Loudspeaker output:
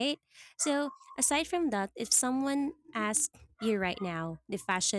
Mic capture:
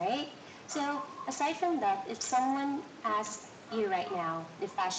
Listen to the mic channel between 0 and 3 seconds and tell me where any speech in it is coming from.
echo only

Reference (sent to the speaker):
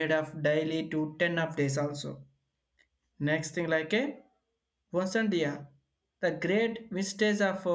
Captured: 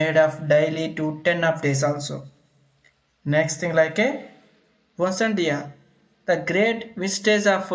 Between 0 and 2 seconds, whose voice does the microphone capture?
echo only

